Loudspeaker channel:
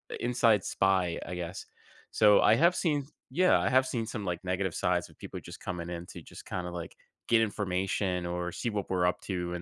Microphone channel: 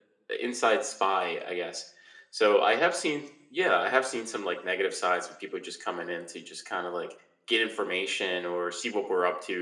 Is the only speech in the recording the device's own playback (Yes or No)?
Yes